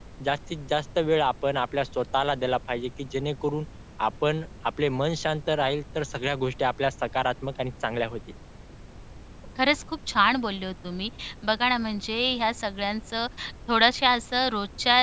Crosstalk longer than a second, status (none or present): none